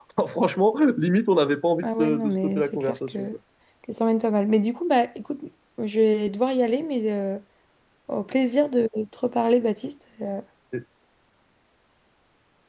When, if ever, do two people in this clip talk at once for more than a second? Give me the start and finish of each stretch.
1.8-3.3

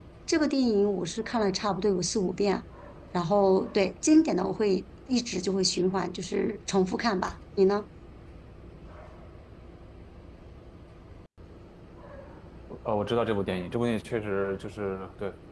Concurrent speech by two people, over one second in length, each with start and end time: none

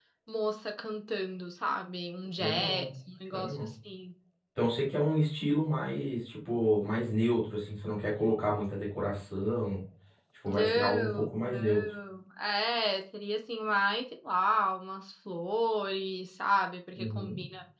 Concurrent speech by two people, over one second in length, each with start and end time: 10.5-11.8

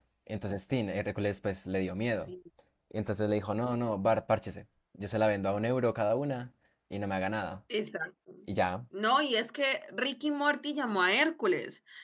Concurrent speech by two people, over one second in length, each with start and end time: none

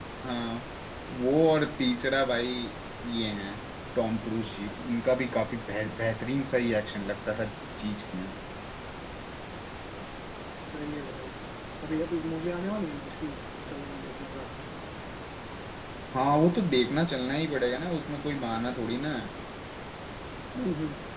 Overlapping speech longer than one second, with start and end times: none

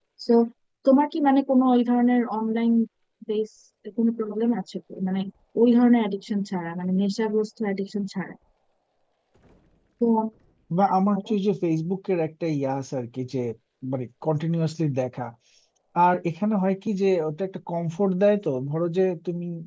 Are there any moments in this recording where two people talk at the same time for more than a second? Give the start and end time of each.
none

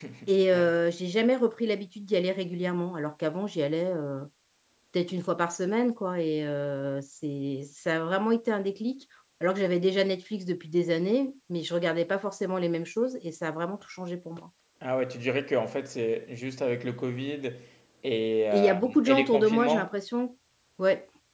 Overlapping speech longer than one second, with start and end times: 18.5-19.9

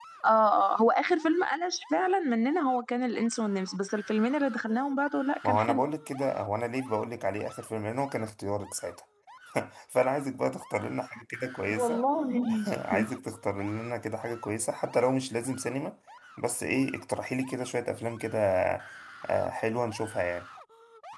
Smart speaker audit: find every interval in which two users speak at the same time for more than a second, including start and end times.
none

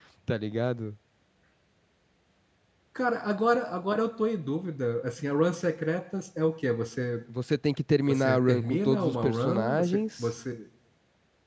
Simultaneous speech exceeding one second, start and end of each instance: 8.1-10.2

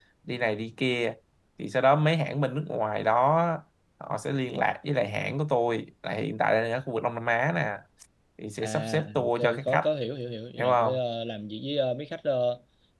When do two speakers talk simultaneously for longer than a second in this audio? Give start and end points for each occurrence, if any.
8.6-9.9

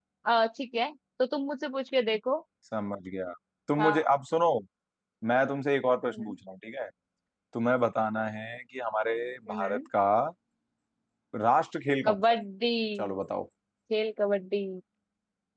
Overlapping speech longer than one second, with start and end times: none

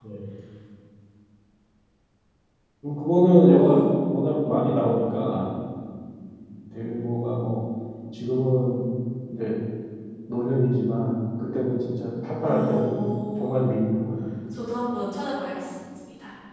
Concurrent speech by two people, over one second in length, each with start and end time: none

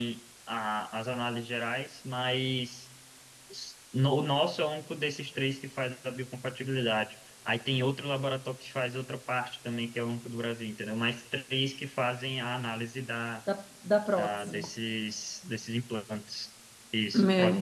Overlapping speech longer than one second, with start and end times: none

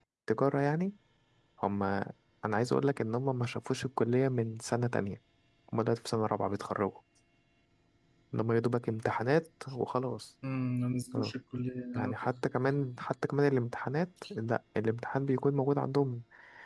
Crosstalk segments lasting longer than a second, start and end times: none

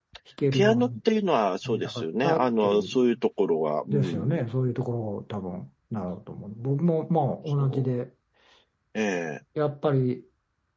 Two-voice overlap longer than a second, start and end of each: 1.6-2.9

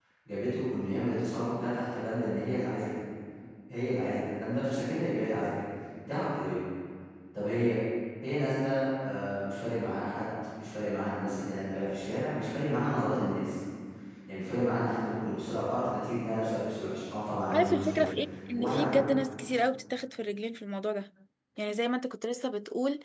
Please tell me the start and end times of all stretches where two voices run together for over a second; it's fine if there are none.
none

